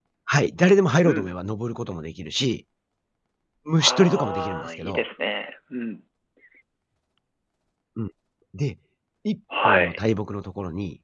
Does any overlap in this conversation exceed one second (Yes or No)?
Yes